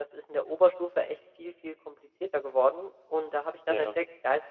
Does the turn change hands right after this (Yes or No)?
No